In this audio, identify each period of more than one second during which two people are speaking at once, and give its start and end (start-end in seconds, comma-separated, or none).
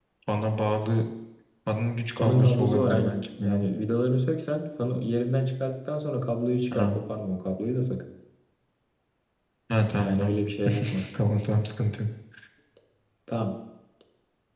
2.2-3.6